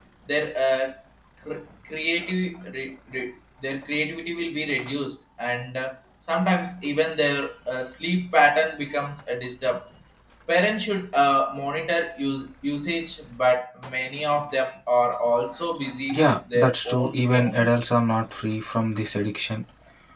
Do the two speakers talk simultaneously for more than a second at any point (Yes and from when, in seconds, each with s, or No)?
Yes, from 16.1 s